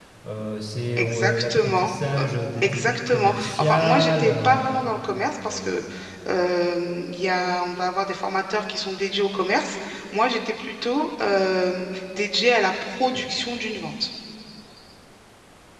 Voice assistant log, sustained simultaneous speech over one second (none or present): present